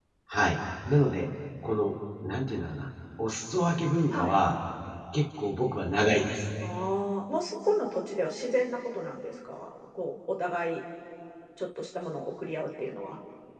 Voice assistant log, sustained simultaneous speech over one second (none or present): none